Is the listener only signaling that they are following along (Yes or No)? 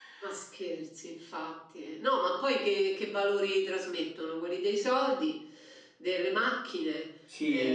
No